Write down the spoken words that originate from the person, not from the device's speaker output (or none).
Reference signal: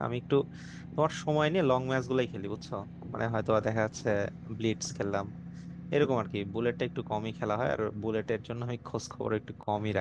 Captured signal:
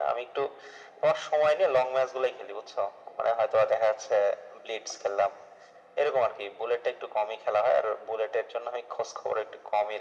none